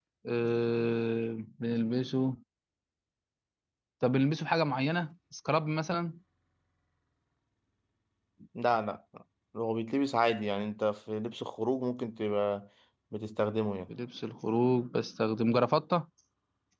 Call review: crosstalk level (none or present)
none